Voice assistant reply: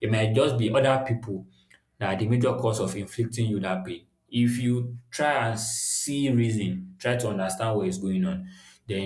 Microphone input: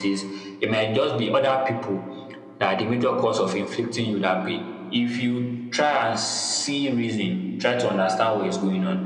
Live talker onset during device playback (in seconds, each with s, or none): none